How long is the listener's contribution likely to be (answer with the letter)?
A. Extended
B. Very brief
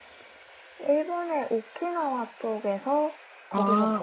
B